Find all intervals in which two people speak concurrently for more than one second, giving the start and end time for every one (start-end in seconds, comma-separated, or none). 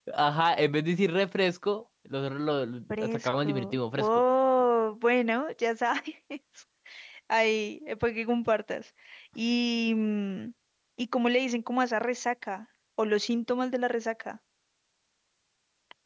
3.0-4.2